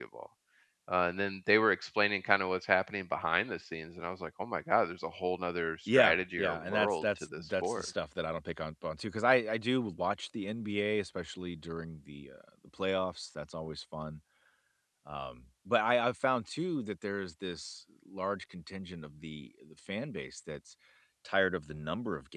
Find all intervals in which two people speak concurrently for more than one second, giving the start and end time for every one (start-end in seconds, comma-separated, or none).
5.9-7.8